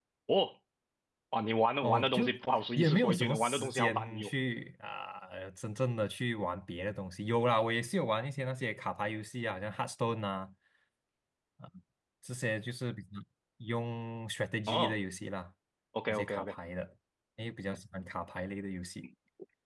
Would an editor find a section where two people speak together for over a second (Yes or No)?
Yes